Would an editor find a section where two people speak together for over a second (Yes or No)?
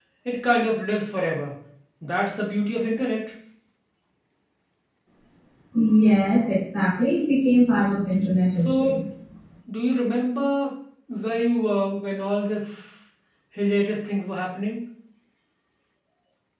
No